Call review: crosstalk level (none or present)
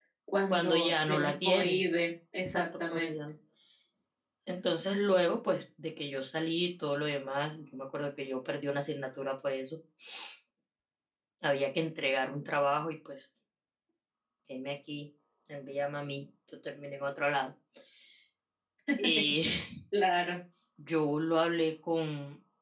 present